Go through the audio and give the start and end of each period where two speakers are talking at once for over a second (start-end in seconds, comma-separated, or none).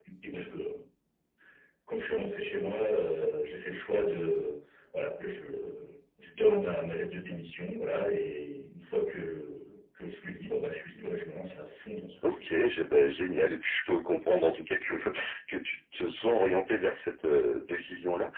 none